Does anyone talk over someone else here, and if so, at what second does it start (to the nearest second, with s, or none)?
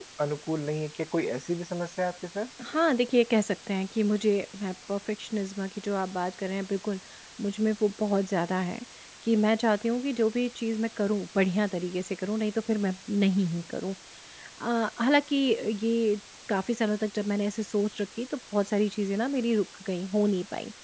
none